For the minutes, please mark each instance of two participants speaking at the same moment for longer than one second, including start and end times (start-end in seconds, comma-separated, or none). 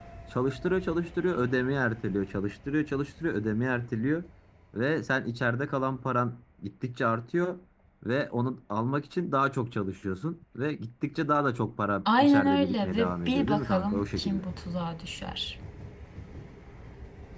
12.1-14.4